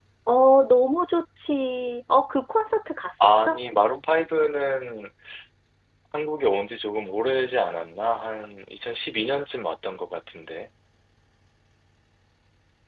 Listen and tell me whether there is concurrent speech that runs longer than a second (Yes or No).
No